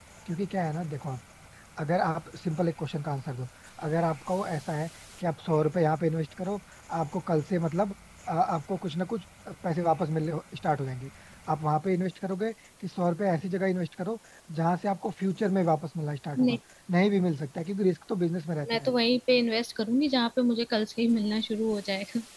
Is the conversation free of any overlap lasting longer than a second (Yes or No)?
Yes